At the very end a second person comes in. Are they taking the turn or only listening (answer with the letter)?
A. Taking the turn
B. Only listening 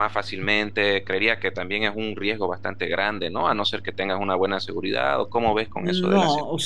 A